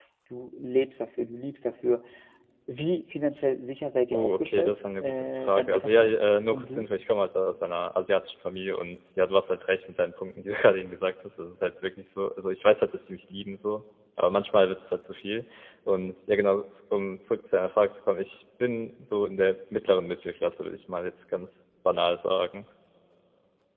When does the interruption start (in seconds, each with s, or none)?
4.1 s